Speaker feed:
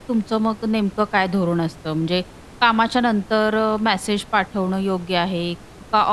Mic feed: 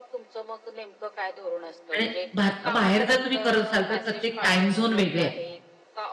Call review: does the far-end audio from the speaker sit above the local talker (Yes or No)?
No